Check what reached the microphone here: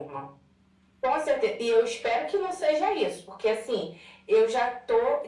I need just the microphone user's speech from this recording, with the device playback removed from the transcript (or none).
none